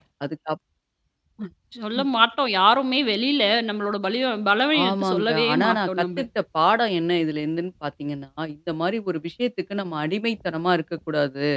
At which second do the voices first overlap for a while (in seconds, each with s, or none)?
4.7 s